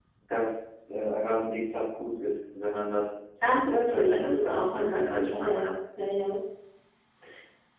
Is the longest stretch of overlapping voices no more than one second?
No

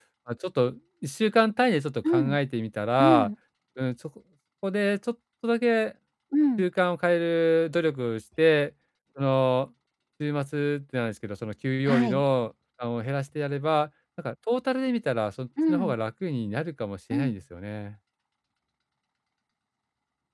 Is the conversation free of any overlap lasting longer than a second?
Yes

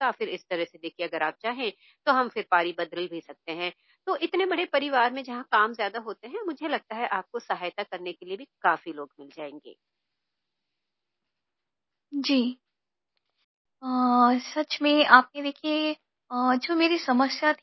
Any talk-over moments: No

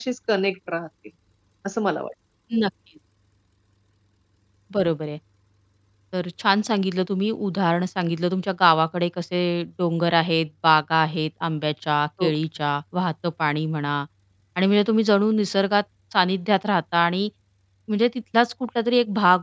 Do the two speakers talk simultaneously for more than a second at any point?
No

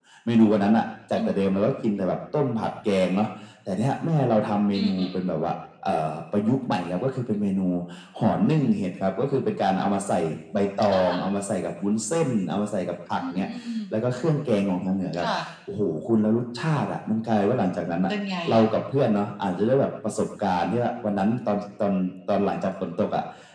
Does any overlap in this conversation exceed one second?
No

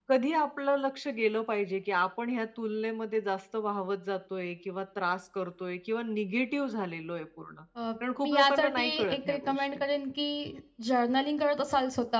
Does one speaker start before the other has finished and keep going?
Yes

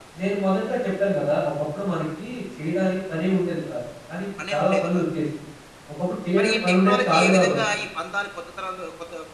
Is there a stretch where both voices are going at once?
Yes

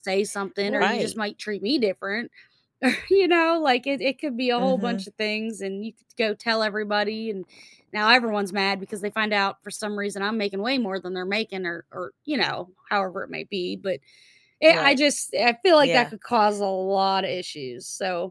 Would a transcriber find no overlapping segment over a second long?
Yes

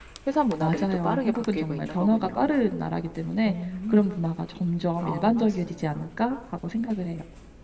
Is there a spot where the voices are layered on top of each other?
Yes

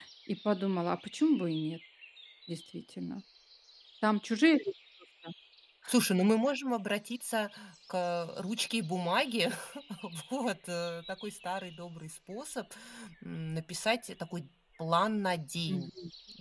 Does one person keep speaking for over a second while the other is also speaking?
No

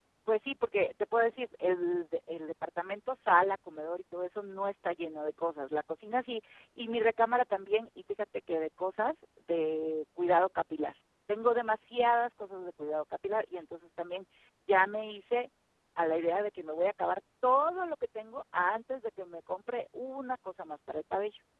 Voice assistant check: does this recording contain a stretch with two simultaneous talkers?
No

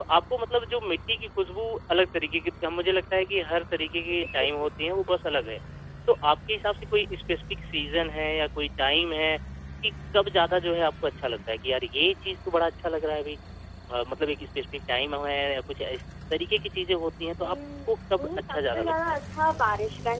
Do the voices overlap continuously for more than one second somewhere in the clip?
Yes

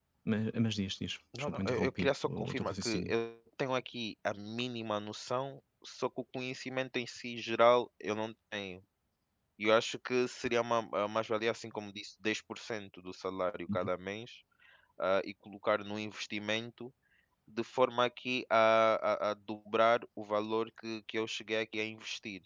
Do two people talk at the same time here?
Yes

